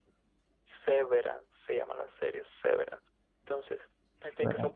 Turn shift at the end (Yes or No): No